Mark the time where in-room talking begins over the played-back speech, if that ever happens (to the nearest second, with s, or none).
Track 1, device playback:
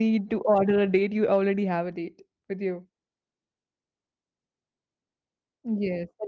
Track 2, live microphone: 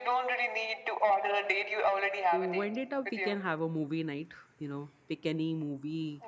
2 s